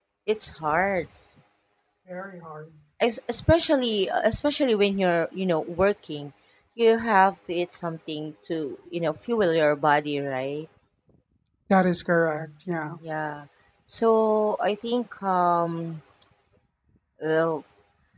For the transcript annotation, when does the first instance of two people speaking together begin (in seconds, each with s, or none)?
none